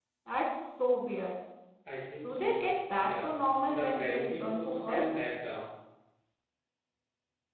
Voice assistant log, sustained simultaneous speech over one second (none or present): present